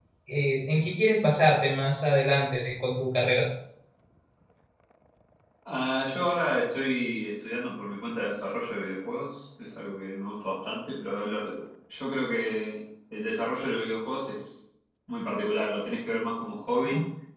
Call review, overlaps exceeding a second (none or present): none